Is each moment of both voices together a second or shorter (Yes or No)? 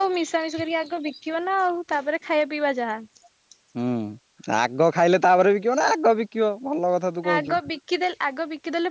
Yes